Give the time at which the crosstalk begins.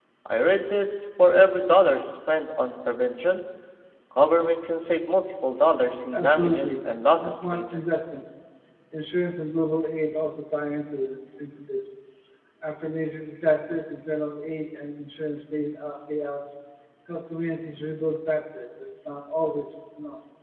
6.1 s

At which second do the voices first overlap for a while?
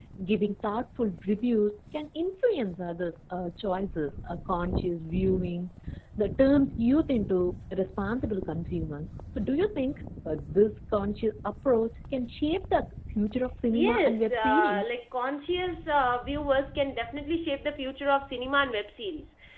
13.7 s

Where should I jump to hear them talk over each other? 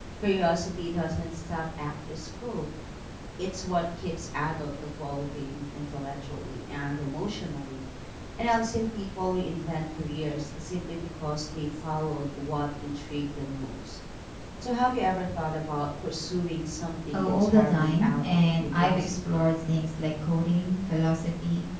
17.1 s

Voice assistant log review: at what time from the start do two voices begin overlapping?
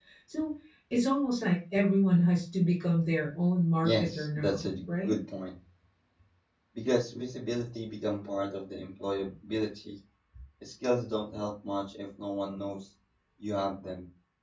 3.8 s

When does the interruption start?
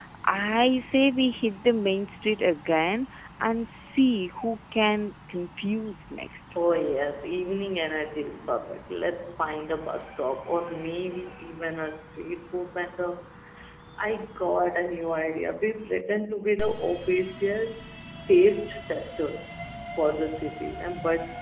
none

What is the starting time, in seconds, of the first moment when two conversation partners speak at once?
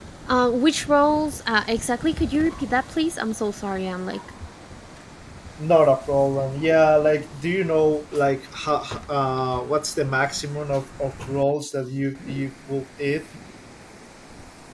none

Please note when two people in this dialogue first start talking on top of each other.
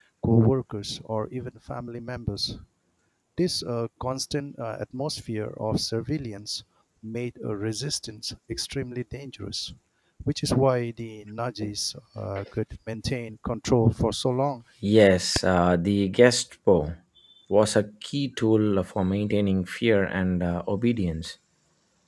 none

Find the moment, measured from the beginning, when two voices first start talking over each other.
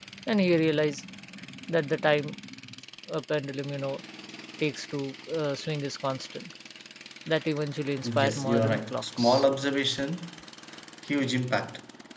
8.0 s

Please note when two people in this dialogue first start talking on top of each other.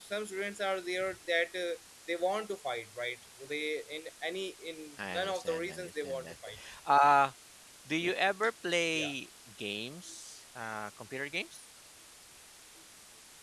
5.0 s

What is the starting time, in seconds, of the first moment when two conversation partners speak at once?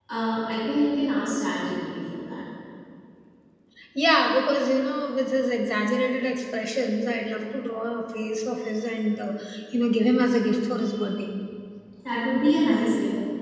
none

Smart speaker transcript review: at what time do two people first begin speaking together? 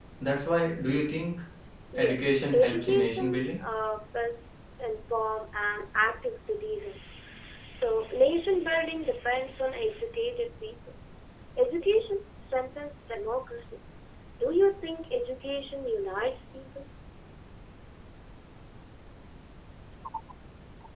2.0 s

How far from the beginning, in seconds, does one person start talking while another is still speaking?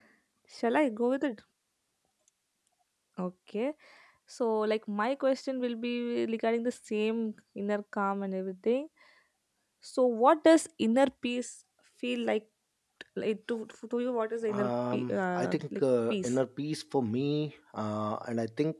14.5 s

